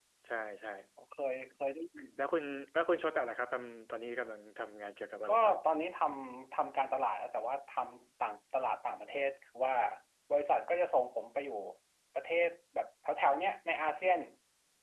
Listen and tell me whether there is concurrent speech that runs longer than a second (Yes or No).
No